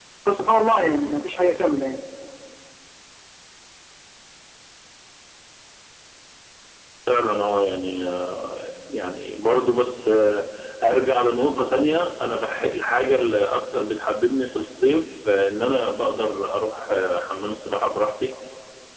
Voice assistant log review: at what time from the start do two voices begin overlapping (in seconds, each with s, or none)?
none